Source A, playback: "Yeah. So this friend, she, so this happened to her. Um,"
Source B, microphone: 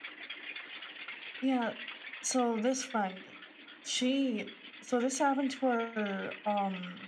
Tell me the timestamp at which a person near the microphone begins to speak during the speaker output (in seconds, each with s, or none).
none